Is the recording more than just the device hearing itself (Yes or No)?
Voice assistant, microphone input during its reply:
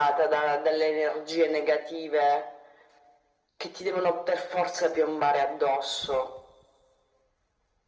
No